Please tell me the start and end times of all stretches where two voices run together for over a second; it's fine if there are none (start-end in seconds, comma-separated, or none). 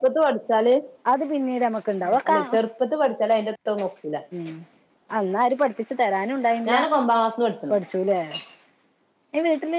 none